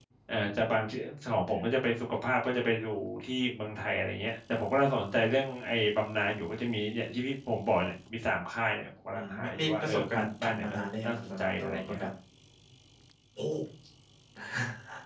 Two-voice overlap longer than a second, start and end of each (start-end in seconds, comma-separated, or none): 9.1-12.1